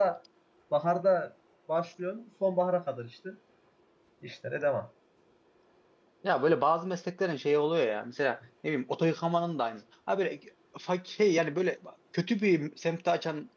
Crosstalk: none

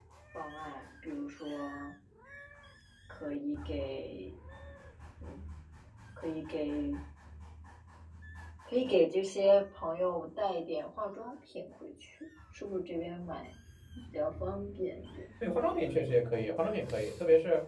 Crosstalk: none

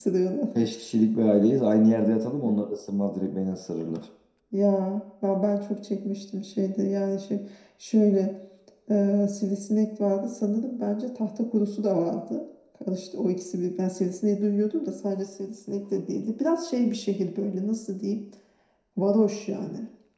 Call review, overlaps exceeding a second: none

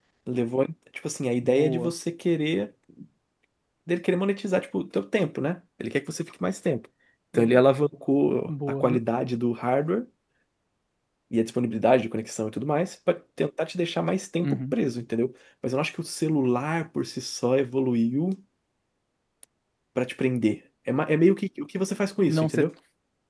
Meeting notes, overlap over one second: none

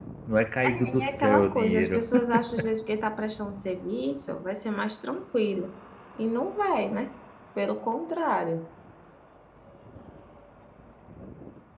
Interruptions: present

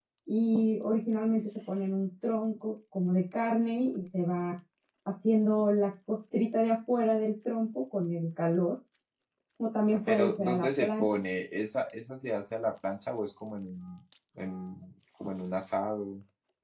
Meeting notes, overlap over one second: present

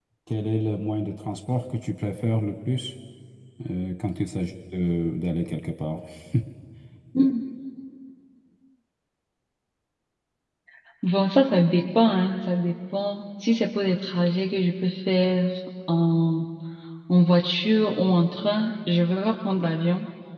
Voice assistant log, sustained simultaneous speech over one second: none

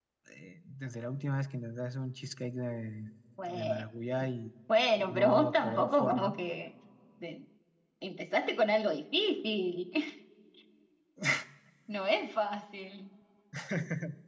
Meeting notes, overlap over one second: present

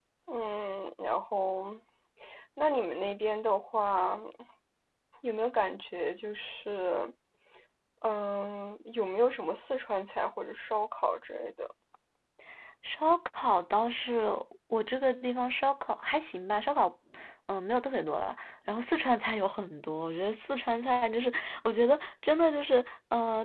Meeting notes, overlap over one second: none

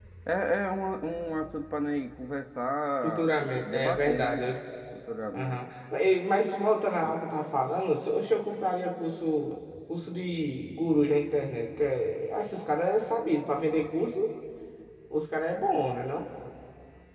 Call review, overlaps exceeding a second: present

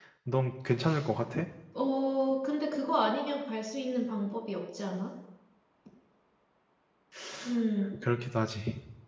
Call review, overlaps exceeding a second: none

